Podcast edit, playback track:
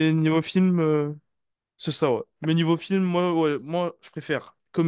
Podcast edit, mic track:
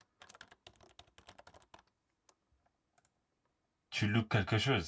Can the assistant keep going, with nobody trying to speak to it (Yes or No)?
No